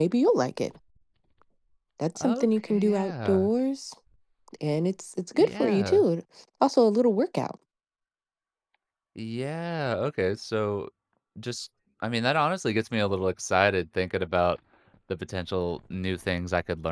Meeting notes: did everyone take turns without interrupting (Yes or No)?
No